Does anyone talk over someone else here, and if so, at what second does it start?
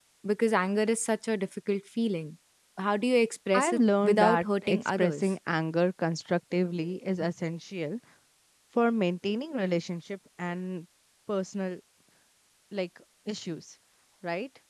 3.5 s

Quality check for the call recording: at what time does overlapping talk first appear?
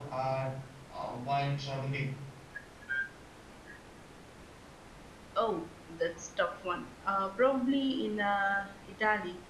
none

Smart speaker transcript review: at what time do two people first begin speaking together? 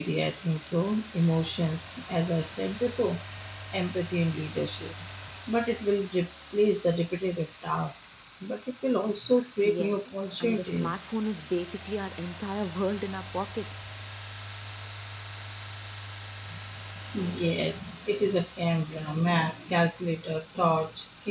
9.6 s

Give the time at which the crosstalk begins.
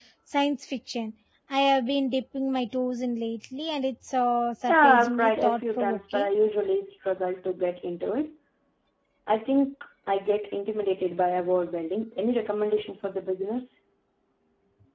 4.7 s

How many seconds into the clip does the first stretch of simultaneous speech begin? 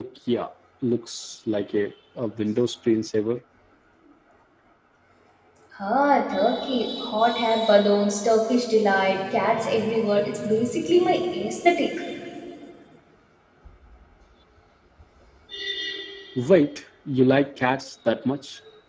none

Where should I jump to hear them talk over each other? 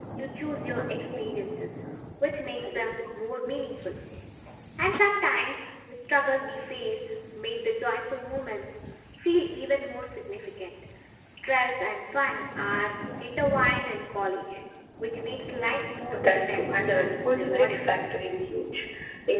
16.1 s

